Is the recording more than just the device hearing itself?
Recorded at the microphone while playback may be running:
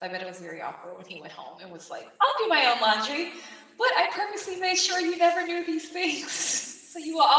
Yes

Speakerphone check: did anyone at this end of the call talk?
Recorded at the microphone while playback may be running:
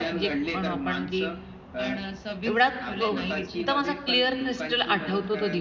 Yes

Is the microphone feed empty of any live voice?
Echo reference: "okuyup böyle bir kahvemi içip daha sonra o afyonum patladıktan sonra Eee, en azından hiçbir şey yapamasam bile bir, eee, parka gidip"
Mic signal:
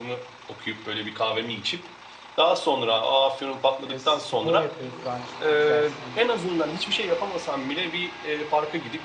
No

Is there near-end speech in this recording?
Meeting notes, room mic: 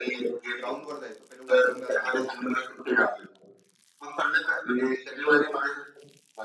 Yes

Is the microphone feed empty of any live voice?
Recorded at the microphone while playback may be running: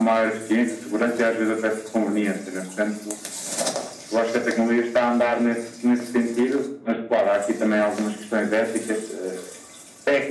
Yes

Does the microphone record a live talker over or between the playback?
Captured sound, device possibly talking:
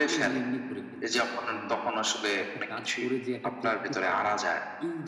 No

